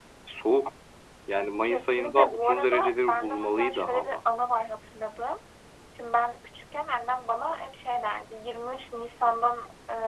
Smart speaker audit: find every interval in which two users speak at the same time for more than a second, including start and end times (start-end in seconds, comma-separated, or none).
1.6-4.2